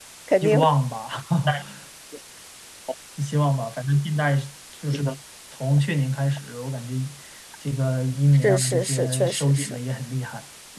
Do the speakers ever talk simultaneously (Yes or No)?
Yes